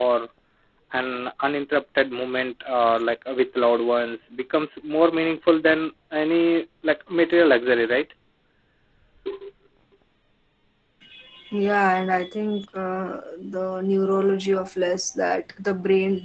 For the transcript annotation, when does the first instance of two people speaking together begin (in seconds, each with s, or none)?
none